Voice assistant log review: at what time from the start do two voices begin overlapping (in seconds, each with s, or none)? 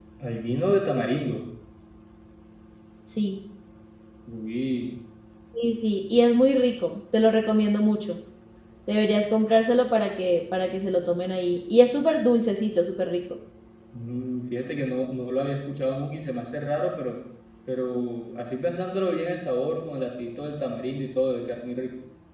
none